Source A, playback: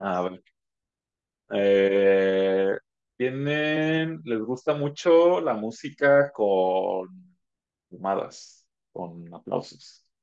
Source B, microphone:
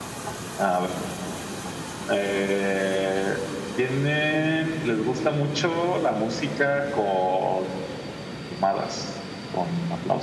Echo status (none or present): present